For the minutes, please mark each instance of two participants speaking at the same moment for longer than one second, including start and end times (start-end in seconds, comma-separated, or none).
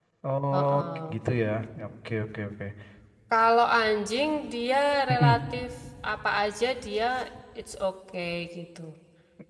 none